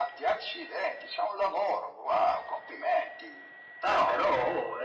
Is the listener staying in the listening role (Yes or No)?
No